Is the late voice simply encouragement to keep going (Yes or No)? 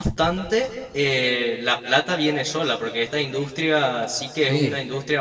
Yes